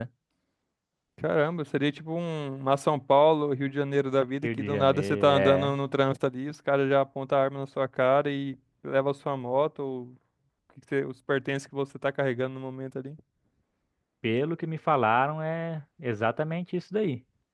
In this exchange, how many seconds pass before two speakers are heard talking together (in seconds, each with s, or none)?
4.4 s